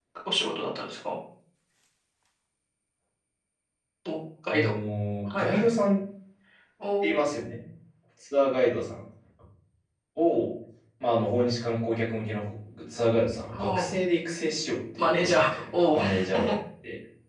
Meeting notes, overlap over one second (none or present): present